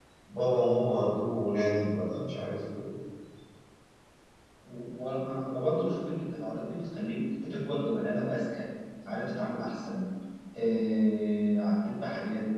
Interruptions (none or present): none